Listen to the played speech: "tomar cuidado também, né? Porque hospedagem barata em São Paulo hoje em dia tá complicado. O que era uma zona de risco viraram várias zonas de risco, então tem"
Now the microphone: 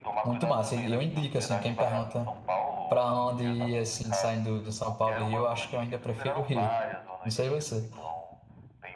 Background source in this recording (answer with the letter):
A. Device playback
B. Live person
A